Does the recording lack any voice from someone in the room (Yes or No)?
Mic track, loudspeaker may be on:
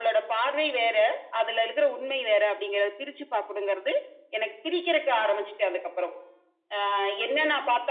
Yes